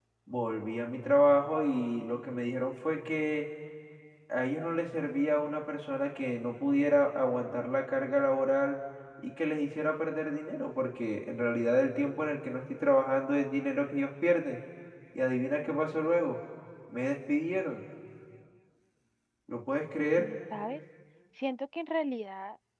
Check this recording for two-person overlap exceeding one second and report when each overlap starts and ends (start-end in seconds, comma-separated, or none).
none